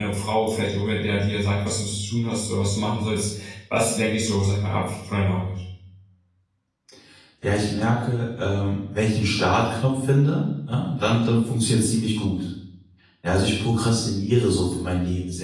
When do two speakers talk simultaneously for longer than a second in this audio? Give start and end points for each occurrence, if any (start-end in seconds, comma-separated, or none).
none